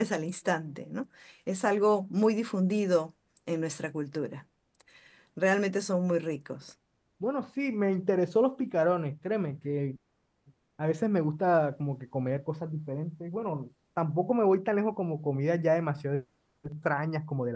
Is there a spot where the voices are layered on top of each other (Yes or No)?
No